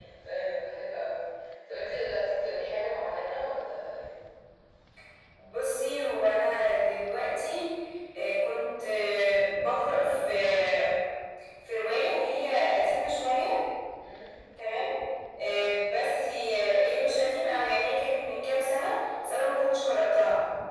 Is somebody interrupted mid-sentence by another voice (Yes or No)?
No